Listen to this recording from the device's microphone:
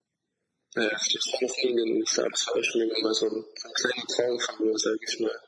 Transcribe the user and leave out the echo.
none

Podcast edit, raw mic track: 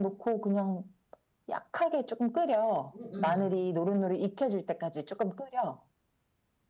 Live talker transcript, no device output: 응,

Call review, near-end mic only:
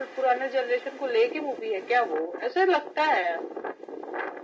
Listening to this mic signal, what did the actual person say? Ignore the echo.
none

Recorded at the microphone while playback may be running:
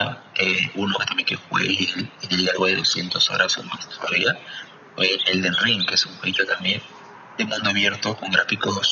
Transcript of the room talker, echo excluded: none

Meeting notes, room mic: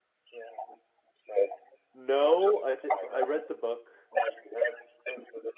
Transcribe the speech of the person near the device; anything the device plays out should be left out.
No, I did I read the book

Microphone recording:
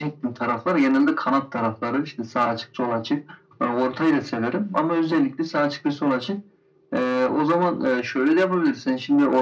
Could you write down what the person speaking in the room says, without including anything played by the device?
none

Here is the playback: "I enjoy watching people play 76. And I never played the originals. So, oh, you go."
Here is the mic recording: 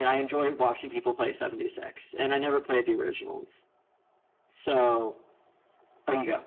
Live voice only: none

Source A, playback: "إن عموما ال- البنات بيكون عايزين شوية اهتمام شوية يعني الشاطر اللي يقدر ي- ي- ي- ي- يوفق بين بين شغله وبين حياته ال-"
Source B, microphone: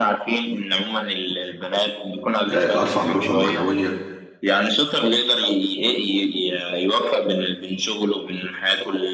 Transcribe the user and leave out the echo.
آه، أرفع من روحه المعنوية

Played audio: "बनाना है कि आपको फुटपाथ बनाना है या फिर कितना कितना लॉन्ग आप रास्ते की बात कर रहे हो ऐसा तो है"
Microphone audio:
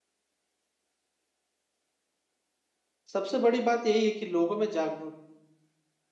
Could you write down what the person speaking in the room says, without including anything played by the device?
सबसे बड़ी बात यही है कि लोगों में जागरूक

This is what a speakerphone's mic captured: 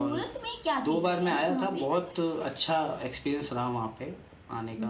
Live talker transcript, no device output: none

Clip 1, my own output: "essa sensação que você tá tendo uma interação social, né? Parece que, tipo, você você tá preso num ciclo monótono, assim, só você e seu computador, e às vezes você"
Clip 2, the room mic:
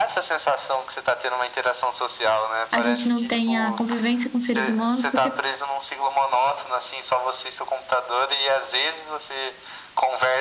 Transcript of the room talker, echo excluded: a gente não tem a convivência com seres humanos, porque

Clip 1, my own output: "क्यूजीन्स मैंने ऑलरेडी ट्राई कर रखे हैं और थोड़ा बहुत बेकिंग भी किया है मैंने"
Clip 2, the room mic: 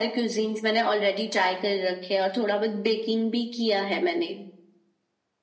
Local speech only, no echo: none

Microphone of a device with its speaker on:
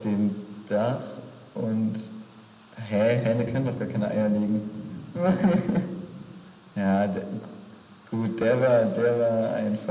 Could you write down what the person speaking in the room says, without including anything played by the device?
none

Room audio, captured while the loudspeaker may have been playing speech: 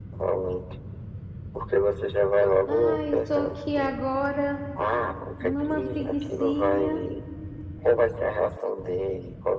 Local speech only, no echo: ah eu tô aqui agora numa preguicinha,

